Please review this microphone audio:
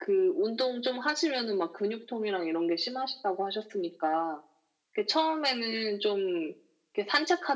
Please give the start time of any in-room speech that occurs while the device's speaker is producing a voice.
none

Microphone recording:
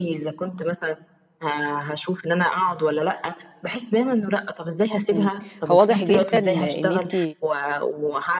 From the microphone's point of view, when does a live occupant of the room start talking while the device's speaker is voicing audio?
5 s

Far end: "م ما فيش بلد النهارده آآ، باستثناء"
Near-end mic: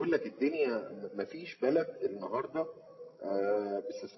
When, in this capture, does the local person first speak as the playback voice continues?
none

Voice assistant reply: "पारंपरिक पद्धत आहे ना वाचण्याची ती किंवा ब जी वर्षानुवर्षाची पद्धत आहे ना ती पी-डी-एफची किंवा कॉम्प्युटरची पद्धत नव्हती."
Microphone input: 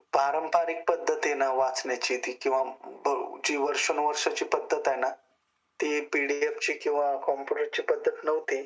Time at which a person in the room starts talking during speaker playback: none

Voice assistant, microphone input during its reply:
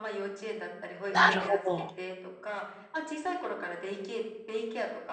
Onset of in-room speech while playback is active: 1 s

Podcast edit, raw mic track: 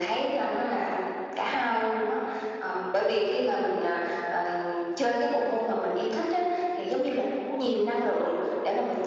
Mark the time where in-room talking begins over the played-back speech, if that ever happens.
none

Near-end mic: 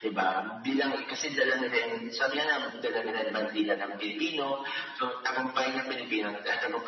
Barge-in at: none

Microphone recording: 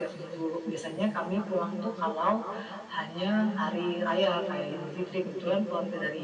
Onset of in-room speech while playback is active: none

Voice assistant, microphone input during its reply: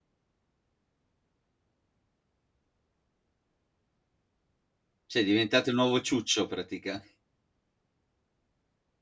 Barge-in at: 5 s

